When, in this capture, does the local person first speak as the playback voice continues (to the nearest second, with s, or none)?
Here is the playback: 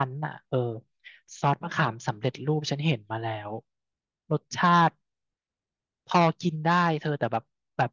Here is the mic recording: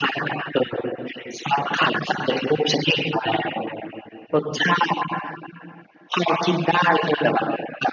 none